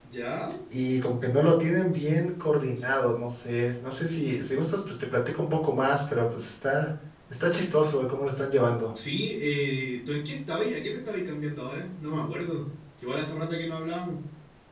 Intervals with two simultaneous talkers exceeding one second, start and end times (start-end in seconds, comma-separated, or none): none